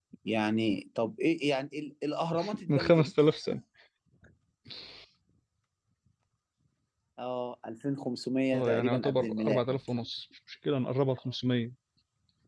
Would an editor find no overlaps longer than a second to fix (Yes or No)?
No